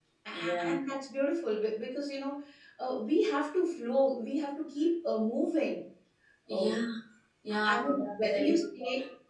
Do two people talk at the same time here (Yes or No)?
Yes